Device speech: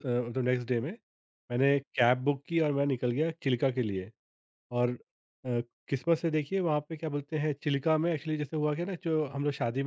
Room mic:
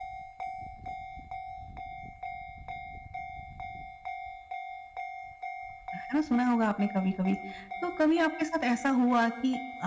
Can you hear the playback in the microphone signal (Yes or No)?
No